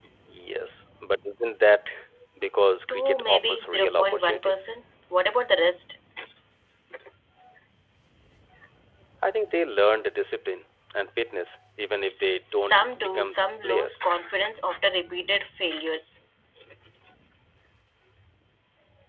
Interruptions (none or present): present